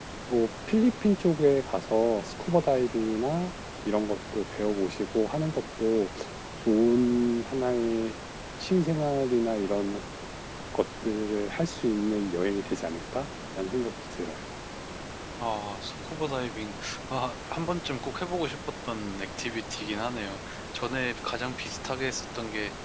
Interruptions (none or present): none